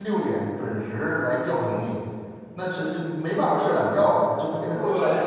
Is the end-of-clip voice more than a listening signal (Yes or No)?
Yes